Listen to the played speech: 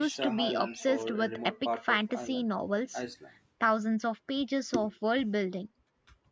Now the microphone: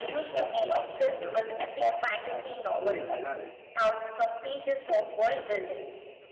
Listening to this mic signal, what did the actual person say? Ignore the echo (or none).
Hmm, well,